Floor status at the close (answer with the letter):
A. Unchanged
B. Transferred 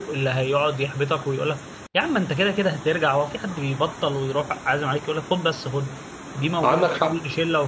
A